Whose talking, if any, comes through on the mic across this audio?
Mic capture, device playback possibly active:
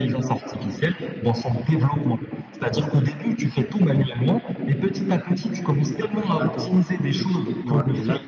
both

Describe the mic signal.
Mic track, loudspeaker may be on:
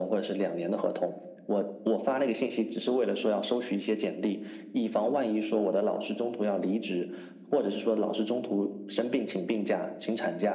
echo only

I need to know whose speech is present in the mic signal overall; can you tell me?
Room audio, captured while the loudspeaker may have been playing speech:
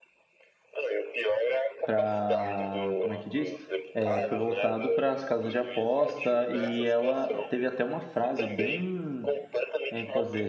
both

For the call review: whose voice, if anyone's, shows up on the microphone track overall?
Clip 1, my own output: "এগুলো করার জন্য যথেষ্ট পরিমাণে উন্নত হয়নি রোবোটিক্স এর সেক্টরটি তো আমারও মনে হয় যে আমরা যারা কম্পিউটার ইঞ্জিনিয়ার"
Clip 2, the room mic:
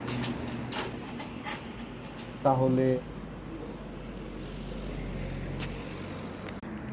user only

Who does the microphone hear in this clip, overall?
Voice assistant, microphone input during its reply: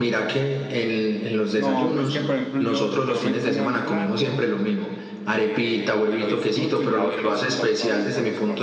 both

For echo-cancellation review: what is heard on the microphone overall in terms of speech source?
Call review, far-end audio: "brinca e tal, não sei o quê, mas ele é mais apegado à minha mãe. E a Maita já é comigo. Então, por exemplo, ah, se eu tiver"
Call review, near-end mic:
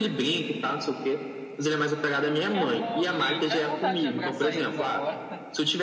both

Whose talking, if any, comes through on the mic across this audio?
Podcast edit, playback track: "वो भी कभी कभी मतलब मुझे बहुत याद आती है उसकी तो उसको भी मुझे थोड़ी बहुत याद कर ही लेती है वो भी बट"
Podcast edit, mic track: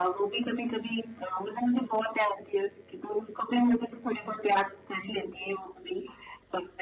echo only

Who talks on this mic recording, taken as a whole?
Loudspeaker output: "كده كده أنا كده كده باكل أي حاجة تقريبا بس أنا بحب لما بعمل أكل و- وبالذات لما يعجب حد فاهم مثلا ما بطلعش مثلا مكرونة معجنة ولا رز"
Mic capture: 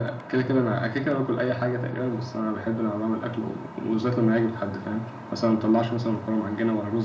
echo only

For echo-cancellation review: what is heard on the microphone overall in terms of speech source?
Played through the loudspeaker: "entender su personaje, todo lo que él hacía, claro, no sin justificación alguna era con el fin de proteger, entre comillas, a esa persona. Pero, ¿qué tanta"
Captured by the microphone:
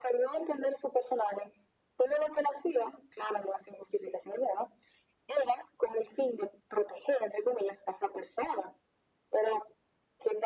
echo only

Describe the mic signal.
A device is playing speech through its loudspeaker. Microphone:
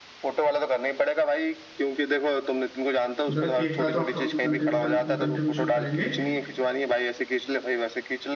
both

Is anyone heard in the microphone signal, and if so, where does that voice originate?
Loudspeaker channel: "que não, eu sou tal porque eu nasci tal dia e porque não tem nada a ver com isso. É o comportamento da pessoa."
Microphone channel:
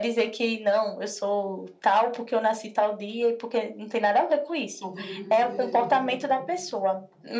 both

